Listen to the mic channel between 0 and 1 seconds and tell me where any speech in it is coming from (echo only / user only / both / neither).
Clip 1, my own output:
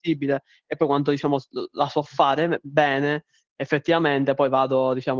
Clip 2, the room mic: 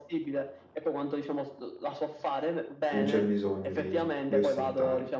echo only